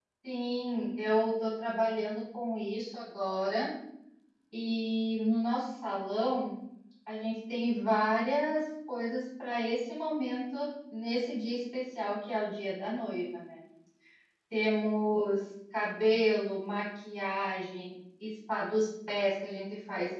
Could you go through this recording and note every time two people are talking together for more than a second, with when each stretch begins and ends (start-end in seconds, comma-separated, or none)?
none